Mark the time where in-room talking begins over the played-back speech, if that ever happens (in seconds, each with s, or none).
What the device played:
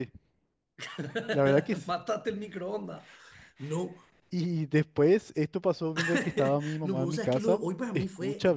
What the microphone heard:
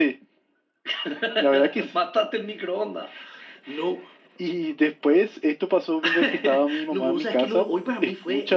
none